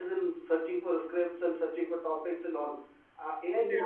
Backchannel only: Yes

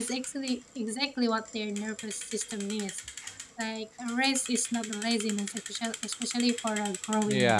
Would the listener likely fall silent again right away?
No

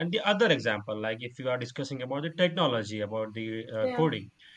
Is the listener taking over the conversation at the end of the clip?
No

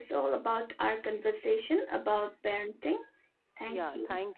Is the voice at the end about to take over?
Yes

